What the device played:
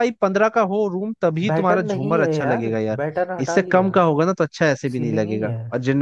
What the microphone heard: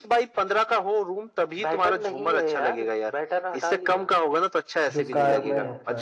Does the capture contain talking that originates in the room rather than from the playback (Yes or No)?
Yes